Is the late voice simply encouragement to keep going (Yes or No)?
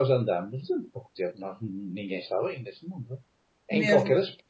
Yes